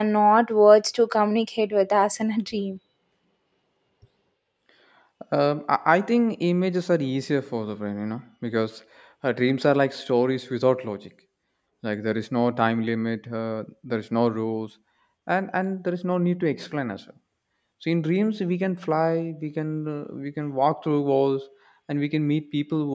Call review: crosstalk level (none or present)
none